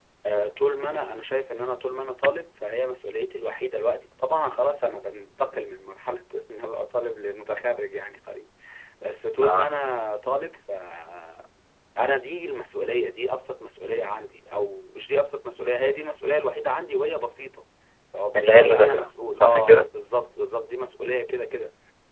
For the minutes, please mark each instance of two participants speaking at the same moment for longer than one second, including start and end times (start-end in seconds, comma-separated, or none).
18.4-19.9